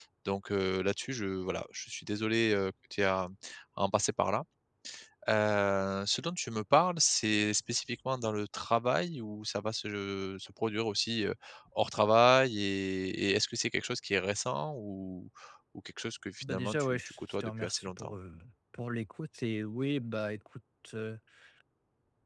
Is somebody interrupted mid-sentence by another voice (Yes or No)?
Yes